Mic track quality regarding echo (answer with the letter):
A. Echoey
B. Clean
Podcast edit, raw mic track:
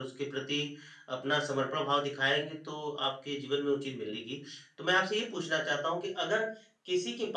A